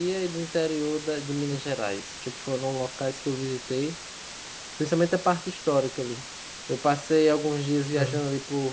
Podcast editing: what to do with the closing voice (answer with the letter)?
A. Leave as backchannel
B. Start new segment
A